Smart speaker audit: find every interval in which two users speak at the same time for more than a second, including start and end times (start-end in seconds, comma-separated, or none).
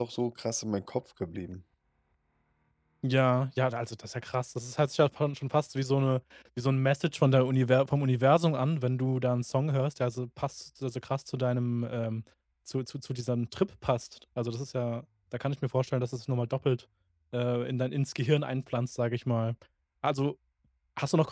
none